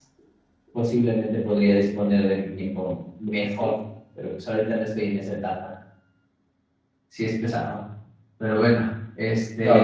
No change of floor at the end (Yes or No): No